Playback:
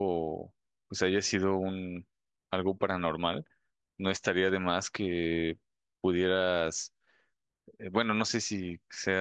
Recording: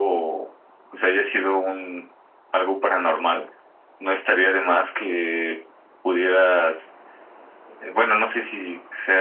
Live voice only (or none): none